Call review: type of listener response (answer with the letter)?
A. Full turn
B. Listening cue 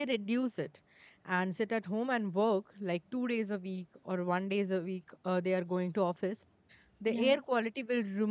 B